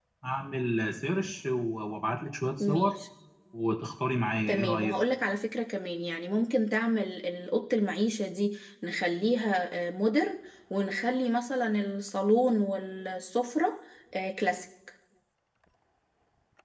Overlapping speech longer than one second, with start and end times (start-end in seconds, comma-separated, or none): none